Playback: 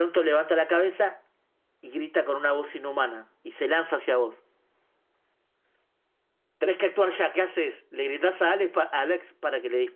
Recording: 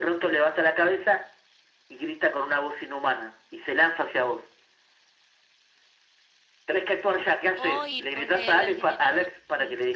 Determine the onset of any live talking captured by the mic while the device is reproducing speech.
7.5 s

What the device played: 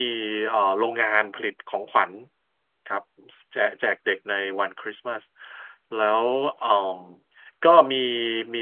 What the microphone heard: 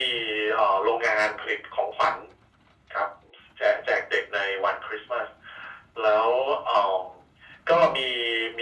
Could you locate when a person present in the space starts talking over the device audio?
none

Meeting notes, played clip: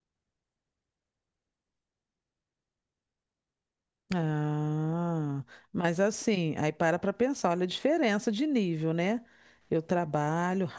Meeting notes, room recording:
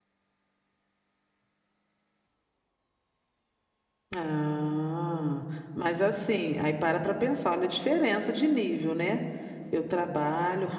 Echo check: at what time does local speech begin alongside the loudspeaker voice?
none

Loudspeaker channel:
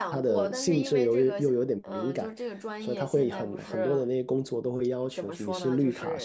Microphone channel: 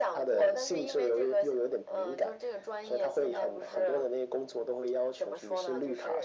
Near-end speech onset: none

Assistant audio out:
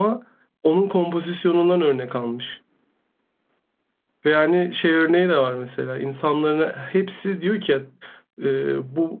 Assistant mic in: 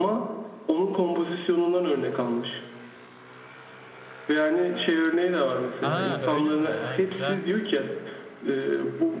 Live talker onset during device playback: 5.8 s

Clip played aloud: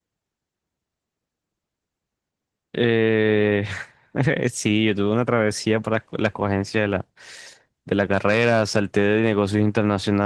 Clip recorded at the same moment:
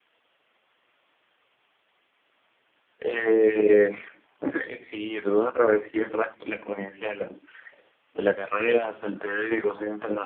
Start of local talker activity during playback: none

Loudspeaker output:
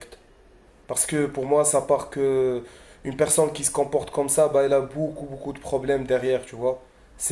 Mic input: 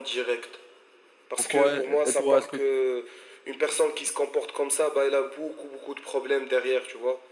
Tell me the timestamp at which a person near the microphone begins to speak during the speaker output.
1.4 s

